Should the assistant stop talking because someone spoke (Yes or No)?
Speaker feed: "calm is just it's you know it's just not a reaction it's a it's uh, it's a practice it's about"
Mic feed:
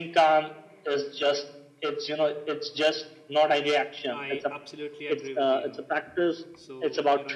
Yes